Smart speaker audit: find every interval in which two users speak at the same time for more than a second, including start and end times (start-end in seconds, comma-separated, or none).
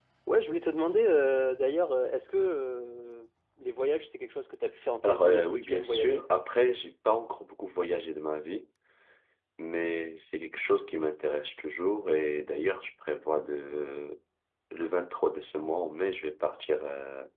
5.0-6.2